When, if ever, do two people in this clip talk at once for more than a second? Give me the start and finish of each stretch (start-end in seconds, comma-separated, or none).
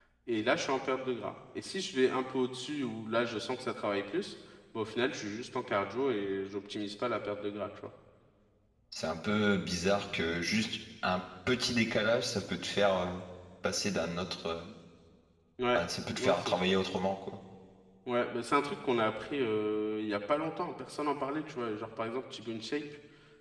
none